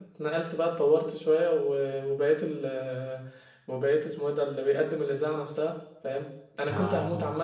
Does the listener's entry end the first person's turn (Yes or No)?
No